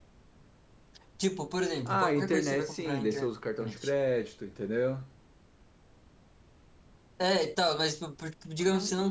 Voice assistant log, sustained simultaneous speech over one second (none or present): present